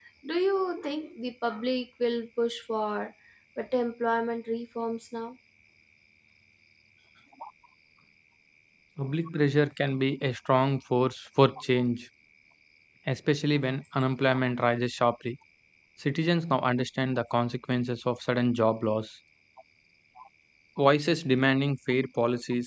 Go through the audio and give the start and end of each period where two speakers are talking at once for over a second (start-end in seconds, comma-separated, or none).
none